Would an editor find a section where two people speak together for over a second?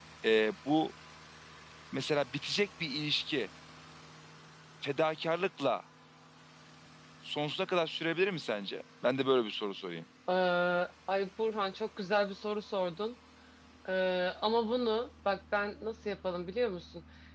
No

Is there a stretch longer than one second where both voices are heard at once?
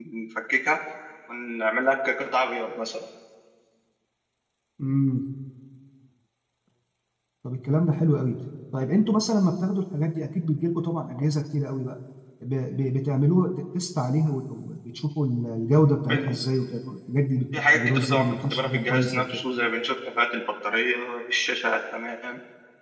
Yes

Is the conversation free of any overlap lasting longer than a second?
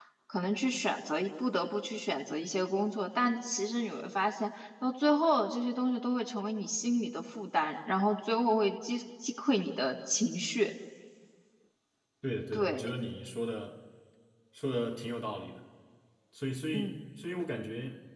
Yes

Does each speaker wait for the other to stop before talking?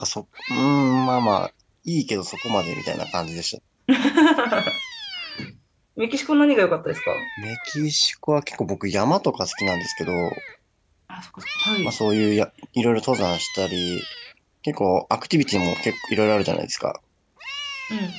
Yes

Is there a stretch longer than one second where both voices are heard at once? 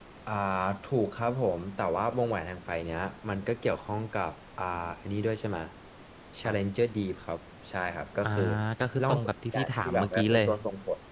Yes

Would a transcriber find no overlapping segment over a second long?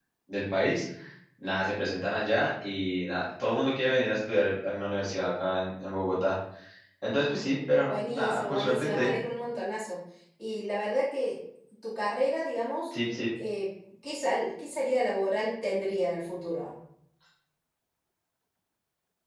No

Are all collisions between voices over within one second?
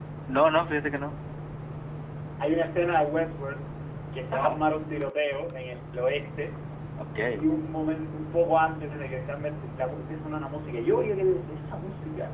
Yes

